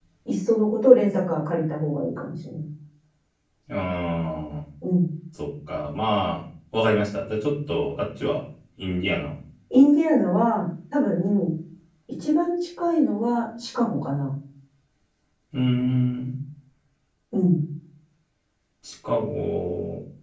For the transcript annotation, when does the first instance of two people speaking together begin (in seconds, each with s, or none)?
none